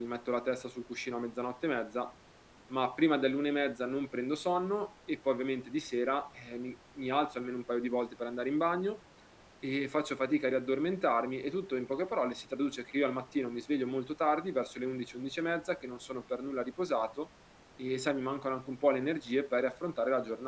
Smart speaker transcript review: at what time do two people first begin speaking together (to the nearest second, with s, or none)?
none